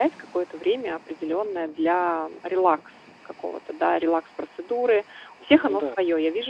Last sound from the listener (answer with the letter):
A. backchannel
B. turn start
A